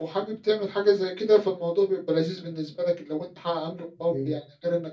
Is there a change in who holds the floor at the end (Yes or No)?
No